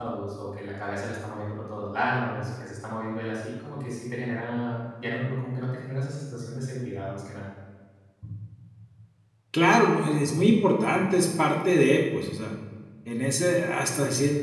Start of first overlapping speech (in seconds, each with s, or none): none